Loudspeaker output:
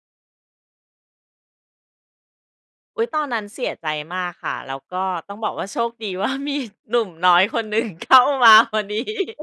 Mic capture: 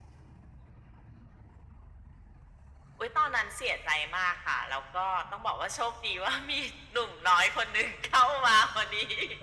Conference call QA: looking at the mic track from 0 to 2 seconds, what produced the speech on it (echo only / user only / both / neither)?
neither